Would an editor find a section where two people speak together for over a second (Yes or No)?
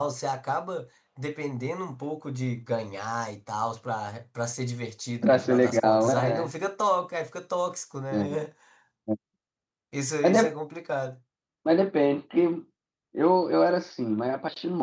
Yes